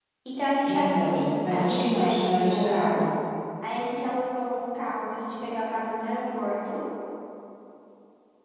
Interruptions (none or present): present